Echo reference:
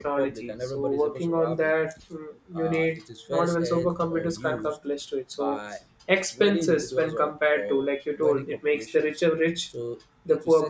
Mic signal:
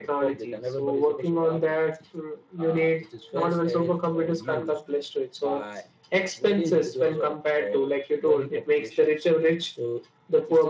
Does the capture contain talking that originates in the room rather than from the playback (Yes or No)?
No